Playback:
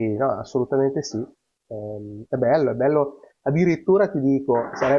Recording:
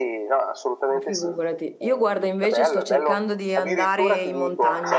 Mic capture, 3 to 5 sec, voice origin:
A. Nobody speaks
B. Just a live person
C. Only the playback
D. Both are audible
D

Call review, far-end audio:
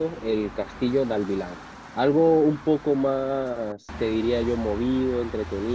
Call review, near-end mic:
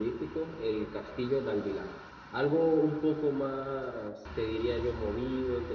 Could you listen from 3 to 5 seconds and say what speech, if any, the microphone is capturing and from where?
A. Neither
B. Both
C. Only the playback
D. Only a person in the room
C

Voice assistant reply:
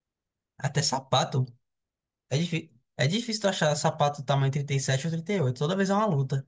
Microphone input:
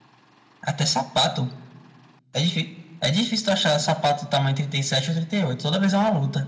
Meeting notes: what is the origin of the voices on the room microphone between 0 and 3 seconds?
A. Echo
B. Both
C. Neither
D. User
A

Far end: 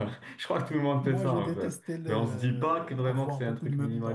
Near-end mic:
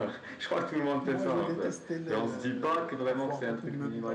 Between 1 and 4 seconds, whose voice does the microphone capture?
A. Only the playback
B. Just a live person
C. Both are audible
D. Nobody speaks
A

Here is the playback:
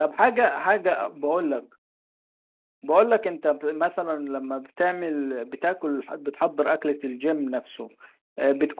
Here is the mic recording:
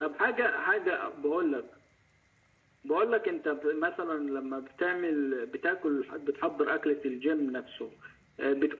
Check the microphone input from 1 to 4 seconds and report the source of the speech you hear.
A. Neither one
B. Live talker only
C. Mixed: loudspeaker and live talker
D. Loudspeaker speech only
D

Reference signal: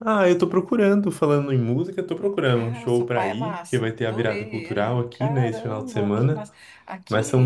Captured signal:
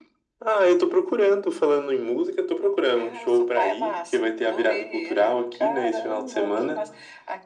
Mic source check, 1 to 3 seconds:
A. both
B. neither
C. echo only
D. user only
C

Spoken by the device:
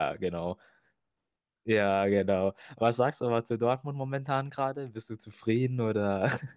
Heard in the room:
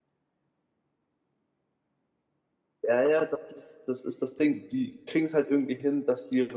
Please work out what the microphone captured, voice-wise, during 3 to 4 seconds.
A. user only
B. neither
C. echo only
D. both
A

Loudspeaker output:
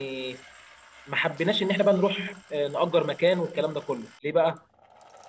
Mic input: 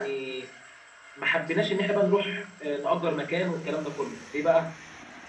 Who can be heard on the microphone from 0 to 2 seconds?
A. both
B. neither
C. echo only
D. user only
C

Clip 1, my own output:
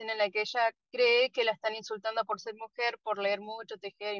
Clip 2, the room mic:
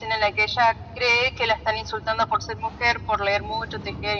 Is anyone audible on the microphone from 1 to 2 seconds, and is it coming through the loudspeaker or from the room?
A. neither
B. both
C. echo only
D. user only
C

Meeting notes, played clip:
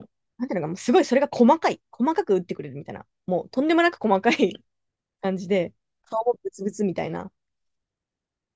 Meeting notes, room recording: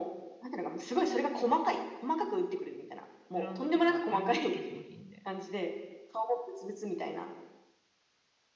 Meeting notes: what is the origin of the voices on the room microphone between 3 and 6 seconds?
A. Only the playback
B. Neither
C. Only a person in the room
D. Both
D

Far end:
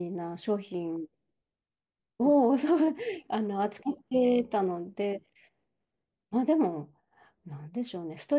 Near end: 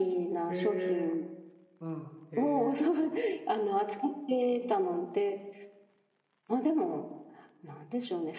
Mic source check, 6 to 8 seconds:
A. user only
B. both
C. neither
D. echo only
D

